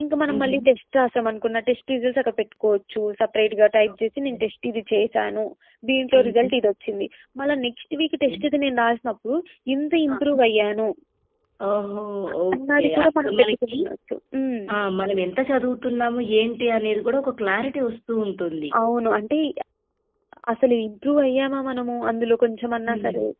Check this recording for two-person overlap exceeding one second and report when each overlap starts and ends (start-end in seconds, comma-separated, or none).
12.5-13.8